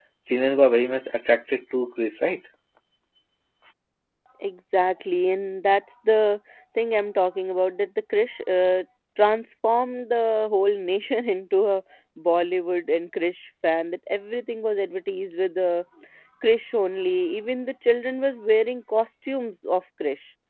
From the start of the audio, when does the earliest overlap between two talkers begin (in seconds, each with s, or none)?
none